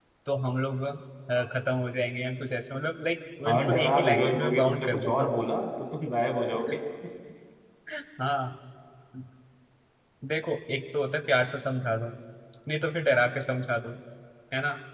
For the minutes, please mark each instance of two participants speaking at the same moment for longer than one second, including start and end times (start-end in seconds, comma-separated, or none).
3.5-5.3